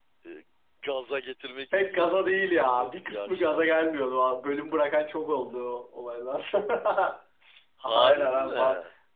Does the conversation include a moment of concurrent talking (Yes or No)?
Yes